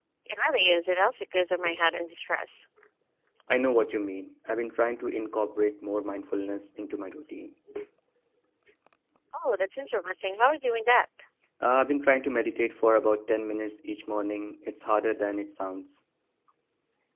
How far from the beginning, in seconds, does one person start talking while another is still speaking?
none

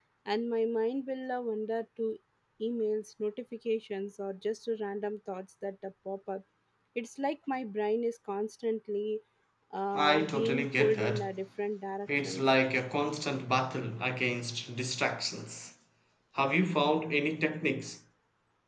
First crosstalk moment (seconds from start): 10.0 s

